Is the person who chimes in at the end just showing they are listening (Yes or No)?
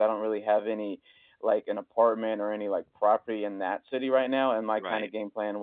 Yes